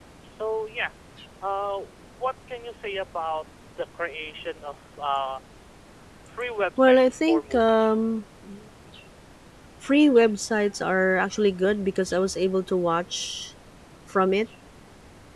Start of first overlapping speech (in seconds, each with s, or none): 6.8 s